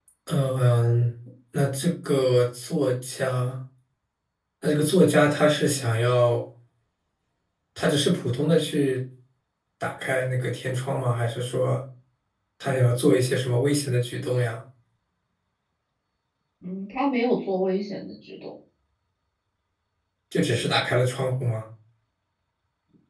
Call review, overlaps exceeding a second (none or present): none